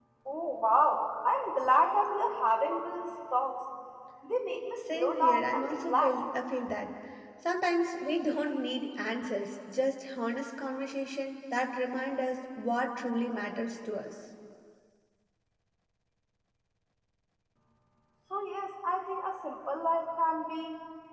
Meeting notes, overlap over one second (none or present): present